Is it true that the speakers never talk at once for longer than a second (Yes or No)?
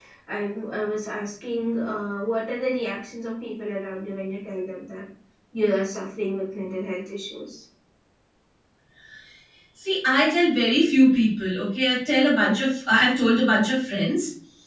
Yes